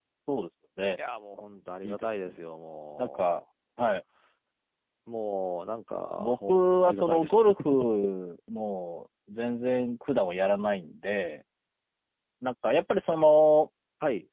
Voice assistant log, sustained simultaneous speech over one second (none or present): present